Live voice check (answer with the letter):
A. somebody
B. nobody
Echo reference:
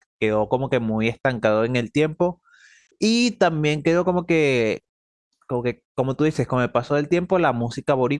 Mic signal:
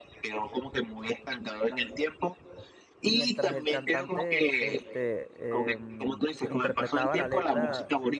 A